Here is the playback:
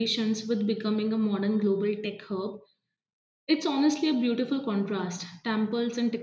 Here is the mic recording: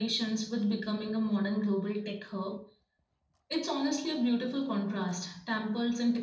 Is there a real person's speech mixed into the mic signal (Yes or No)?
No